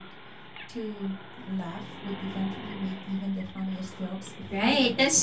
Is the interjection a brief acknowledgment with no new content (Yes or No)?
No